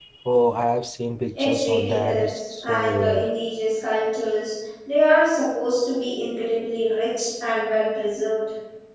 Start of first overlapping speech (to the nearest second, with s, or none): 1 s